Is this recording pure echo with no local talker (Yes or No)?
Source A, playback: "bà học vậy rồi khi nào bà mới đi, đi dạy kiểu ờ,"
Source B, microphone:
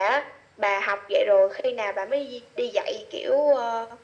Yes